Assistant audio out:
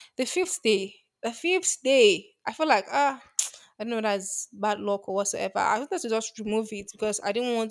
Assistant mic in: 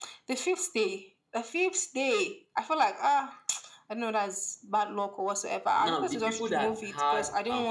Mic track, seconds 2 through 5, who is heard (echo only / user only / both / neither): echo only